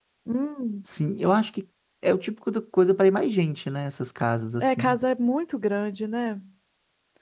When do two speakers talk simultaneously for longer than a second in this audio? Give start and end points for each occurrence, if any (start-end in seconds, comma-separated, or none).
none